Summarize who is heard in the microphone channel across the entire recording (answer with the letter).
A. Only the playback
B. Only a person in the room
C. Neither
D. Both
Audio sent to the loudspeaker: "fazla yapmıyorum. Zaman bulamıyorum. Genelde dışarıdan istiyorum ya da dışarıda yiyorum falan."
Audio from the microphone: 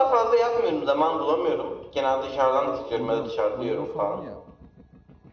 D